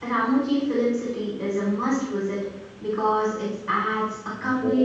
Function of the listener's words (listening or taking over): listening